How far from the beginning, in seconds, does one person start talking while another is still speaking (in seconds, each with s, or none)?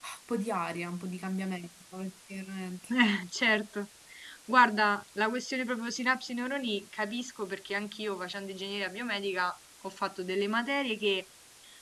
none